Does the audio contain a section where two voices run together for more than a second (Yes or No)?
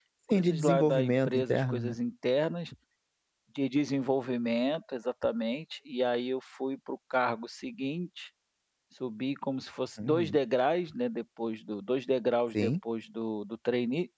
Yes